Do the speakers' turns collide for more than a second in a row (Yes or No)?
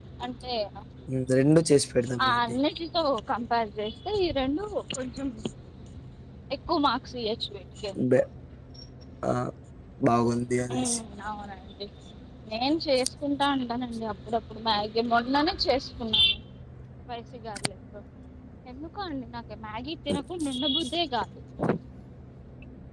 No